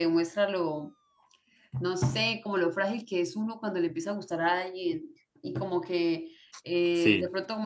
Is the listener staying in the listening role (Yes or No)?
Yes